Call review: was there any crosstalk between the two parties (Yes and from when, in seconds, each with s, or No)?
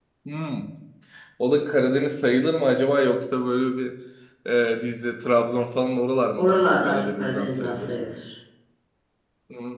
Yes, from 6.3 s